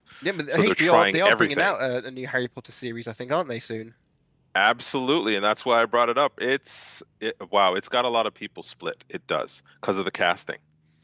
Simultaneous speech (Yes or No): Yes